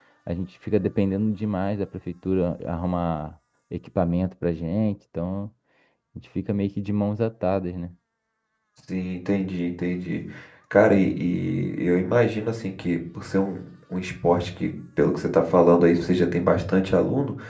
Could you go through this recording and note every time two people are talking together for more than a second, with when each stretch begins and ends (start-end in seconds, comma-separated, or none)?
none